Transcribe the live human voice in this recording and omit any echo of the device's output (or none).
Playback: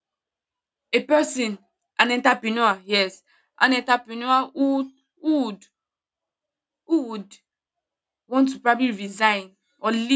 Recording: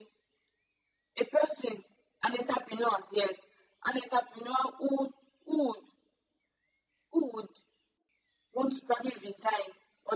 none